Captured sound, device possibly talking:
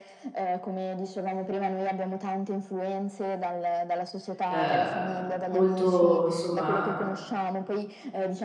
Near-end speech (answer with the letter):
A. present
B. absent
A